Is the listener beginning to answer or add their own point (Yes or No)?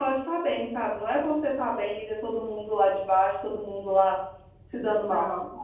Yes